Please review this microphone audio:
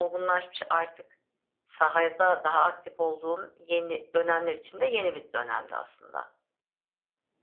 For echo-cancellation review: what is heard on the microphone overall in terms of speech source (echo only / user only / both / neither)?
echo only